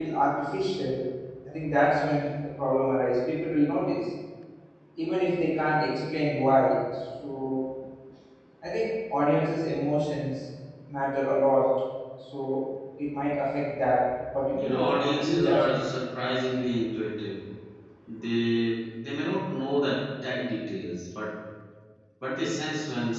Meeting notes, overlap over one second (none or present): present